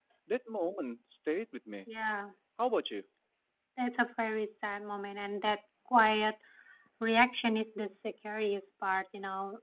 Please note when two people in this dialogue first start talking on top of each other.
none

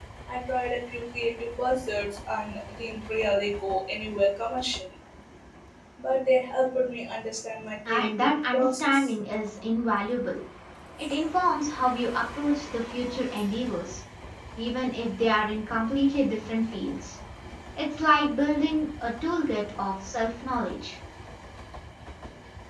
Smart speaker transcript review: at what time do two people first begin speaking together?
7.8 s

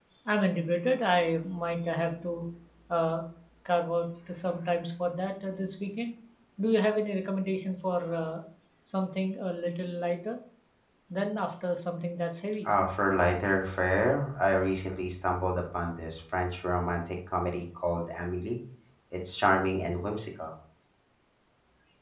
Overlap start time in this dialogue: none

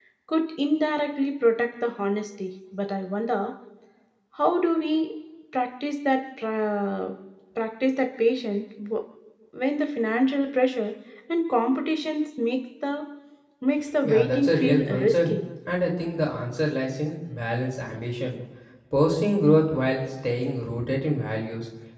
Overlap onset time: 14.0 s

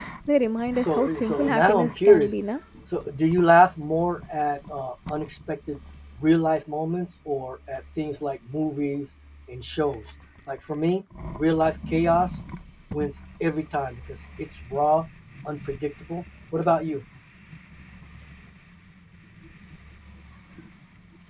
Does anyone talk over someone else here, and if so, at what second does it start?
0.8 s

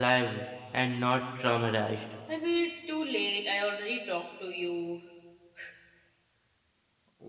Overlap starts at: none

